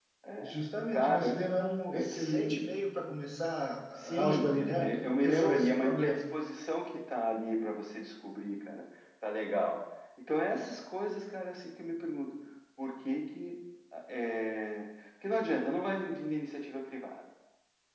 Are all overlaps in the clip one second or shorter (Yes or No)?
No